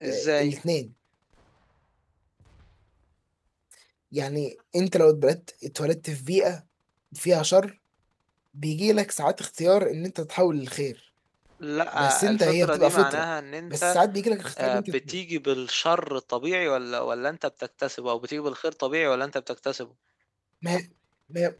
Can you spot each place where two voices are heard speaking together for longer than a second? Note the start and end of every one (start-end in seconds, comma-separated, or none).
11.9-13.2